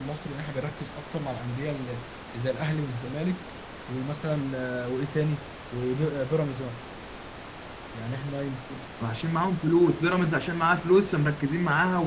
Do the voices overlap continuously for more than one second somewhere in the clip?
No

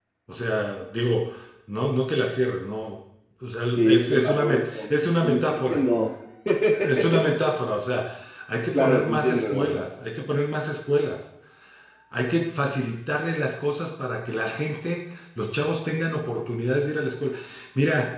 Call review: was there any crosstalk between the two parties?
Yes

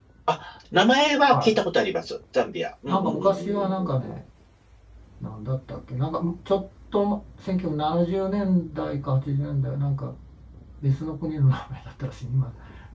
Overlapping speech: Yes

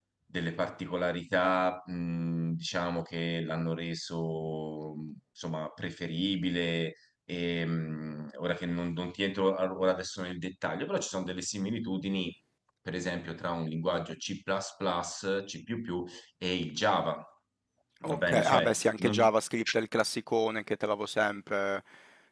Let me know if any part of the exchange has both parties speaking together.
Yes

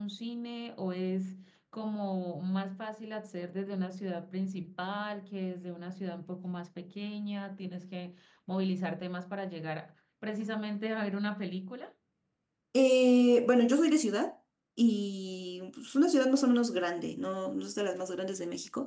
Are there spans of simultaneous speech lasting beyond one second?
No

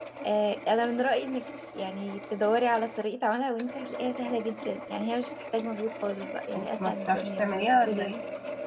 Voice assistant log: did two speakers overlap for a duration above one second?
Yes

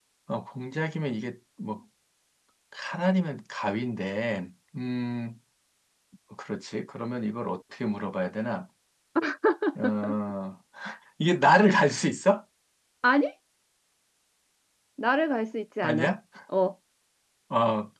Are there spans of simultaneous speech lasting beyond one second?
No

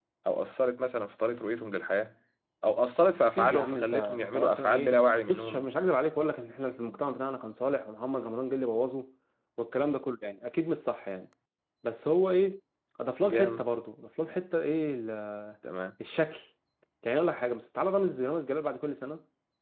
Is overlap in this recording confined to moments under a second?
No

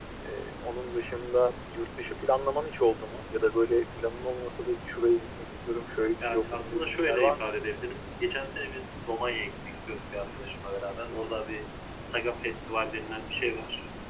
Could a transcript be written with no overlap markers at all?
No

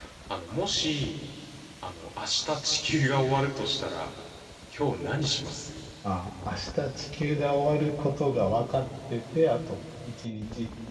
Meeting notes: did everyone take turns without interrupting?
Yes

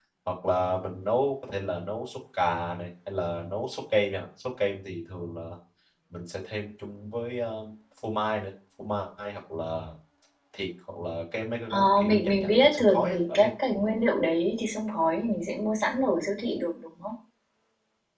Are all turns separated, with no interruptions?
No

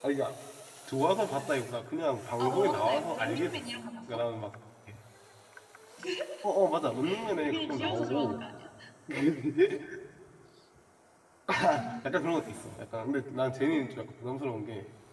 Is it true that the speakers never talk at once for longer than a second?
No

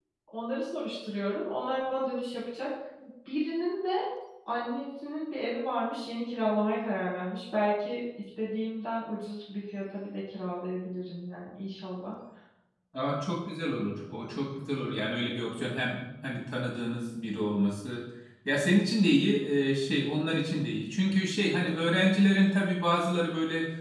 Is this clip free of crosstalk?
Yes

